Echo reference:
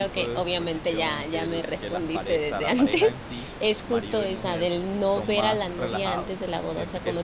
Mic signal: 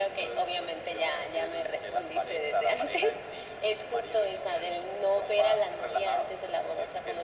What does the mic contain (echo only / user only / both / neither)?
echo only